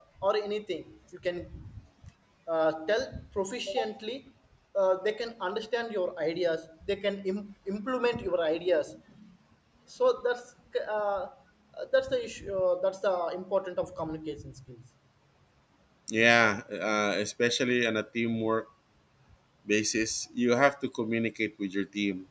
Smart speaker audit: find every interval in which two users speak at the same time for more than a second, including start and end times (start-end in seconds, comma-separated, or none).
none